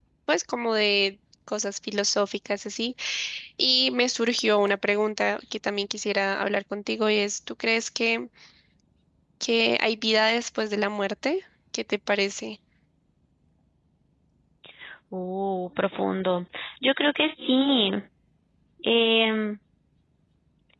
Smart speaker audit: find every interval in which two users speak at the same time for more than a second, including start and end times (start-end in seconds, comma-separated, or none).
none